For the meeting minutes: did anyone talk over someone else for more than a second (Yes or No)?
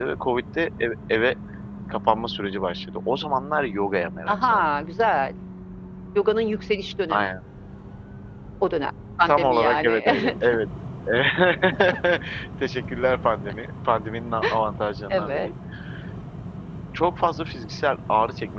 Yes